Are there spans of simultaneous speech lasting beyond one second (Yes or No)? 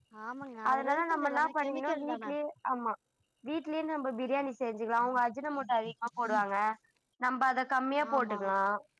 Yes